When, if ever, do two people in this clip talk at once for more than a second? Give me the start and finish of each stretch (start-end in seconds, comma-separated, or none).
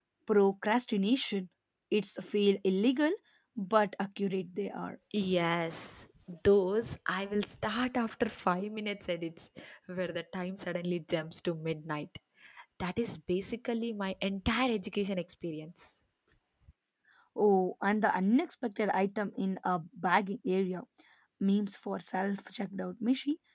none